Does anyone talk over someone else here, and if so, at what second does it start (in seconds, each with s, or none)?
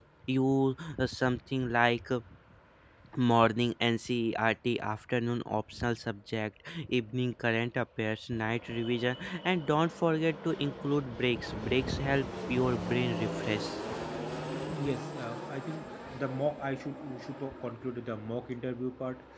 none